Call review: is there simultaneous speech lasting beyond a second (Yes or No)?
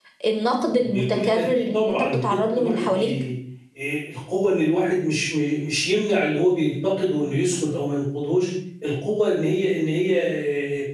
Yes